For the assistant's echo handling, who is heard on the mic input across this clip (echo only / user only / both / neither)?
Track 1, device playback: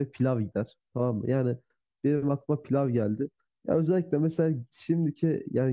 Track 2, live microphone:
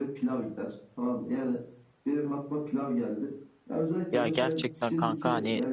both